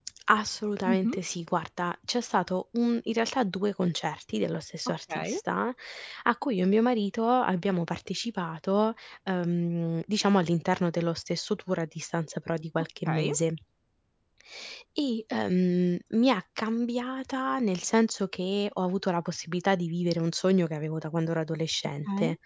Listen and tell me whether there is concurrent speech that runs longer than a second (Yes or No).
No